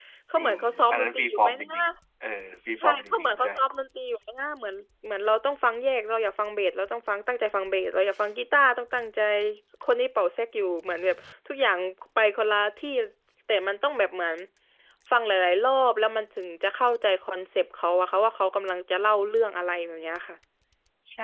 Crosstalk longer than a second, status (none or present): present